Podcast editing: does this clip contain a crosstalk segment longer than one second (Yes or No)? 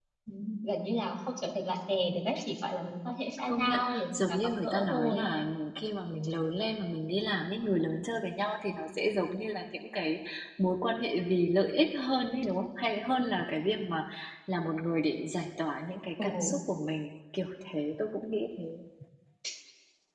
Yes